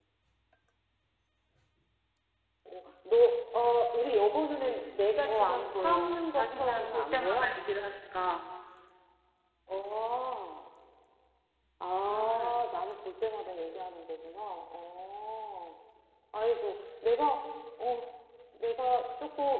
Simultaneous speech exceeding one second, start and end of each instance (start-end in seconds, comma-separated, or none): 5.3-7.5